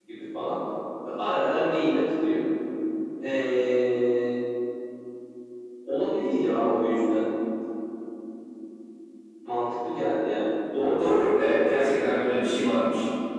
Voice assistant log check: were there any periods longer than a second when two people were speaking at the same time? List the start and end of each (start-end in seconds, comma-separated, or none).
none